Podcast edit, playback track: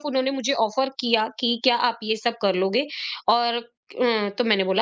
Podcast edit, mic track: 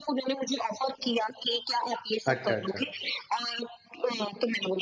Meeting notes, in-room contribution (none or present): present